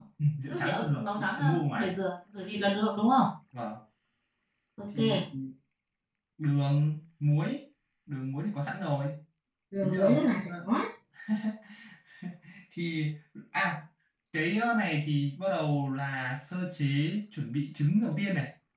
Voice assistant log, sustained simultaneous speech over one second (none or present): present